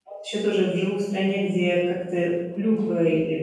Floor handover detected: No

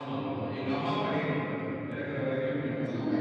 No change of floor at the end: No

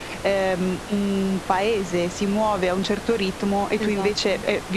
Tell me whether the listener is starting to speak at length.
No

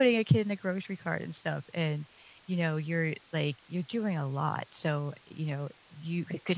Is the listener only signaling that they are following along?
Yes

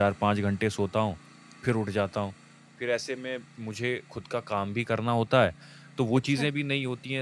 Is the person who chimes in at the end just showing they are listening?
Yes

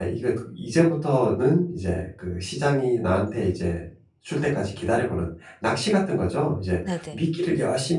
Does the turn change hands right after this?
No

